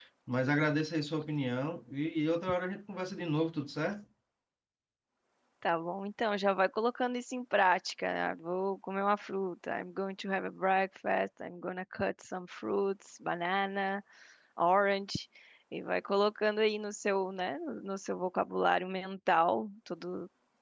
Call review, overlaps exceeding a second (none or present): none